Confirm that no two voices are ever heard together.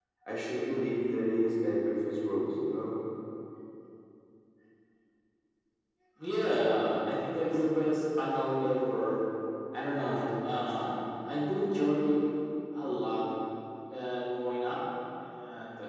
Yes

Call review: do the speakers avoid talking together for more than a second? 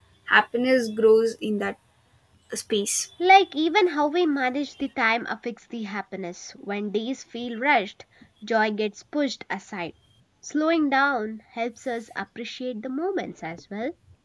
Yes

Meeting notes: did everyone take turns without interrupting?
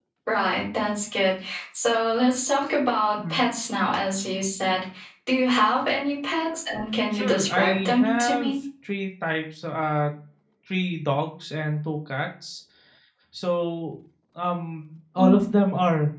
No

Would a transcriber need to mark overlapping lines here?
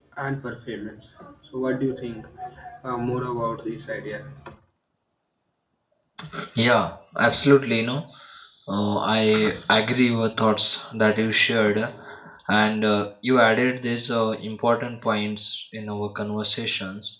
No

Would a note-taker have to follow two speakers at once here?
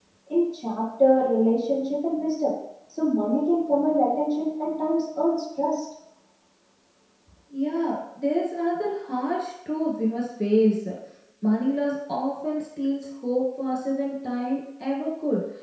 No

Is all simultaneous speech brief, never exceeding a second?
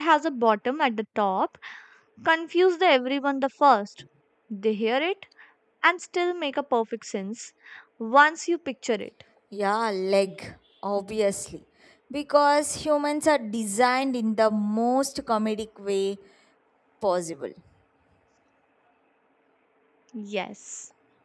Yes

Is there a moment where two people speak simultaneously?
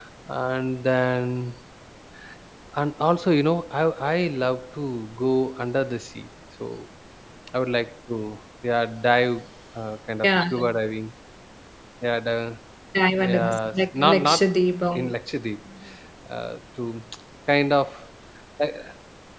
Yes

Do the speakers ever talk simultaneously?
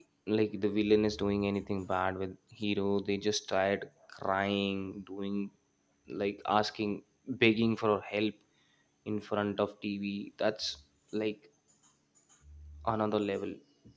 No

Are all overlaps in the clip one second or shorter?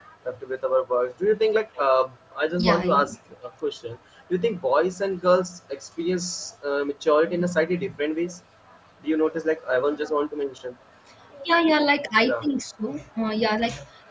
Yes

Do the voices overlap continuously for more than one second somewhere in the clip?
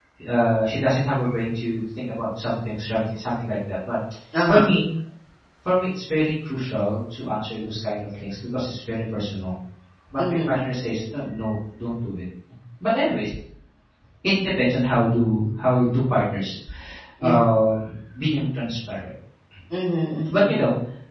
No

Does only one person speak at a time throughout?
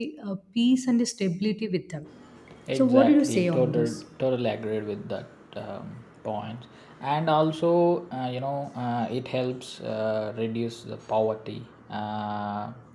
No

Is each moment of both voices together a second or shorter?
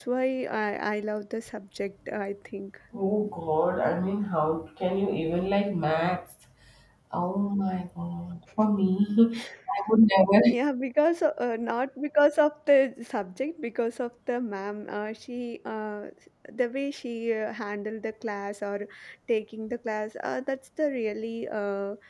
Yes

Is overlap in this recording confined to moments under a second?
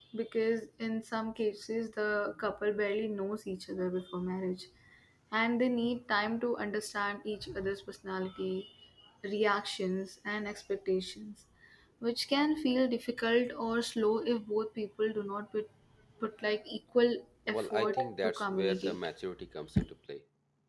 No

